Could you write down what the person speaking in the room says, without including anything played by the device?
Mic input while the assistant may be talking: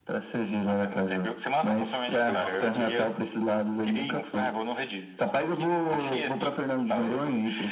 Pelo Nordeste já veio?

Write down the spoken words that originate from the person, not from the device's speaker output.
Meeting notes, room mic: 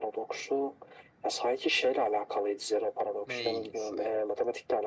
Neyse.

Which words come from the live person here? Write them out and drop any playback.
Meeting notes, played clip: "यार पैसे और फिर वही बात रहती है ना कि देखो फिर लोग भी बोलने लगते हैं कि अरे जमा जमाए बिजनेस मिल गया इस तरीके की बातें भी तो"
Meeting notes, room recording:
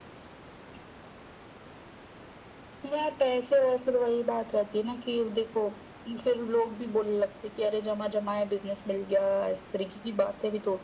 none

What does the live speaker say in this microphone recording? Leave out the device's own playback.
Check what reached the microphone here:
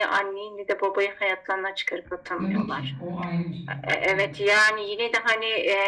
Tabii ki. O ayrı bir şey. Evet.

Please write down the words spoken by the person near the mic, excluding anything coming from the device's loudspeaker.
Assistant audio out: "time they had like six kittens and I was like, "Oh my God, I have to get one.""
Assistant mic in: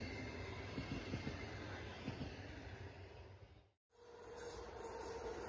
none

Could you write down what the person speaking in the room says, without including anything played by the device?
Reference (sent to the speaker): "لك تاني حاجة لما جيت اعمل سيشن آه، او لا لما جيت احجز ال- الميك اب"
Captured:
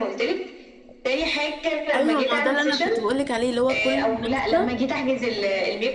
ايوه ما هو ده اللي انا كنت بقولك عليه اللي هو كل مناسبة

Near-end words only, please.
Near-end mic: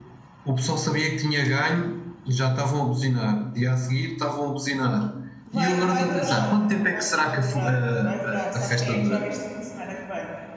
Vai, vai durar, vai, vai durar, vai durar. Sabes quem é que joga este fim de semana que vem?

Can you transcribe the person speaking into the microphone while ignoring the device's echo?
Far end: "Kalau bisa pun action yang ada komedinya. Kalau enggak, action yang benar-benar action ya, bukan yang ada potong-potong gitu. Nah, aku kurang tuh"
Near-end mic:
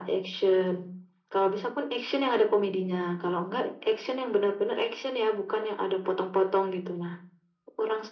none

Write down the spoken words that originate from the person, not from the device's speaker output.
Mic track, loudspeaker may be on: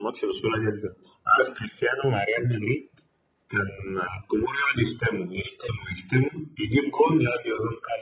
none

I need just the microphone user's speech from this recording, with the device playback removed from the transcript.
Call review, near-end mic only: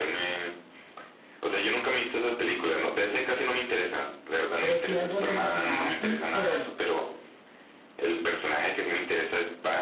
Pero sí algo relacionado así, pero

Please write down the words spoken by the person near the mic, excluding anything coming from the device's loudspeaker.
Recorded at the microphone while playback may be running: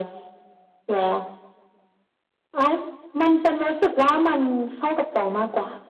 none

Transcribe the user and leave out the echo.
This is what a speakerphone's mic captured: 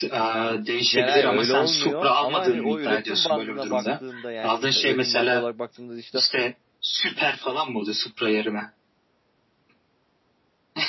Yani hayır öyle olmuyor ama hani o üretim bandına baktığında yani mesela üretim bandı olarak baktığımda işte

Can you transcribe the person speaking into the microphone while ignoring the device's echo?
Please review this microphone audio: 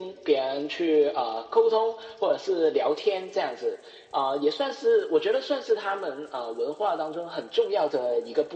none

